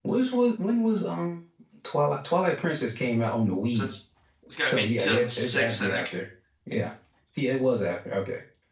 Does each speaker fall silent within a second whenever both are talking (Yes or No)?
No